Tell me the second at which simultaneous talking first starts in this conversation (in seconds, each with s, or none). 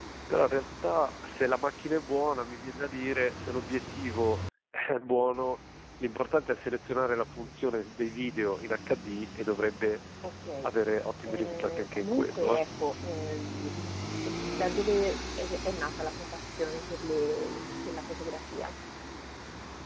11.2 s